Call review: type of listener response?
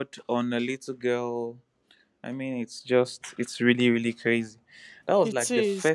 listening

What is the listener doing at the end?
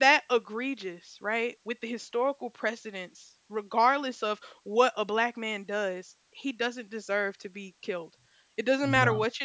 listening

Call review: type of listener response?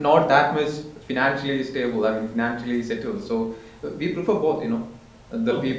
listening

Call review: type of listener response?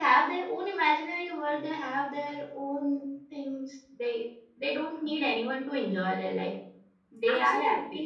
listening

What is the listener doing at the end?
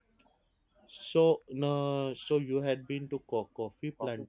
taking over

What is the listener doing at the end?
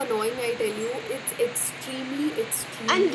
taking over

